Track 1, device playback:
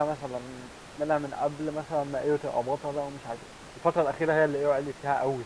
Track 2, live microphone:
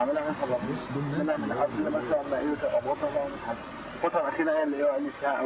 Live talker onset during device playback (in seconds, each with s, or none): 0.3 s